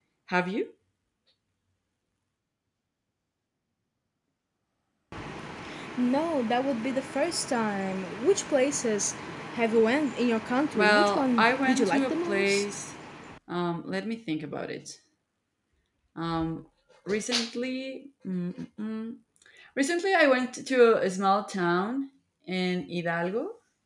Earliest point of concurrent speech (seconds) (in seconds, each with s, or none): 10.7 s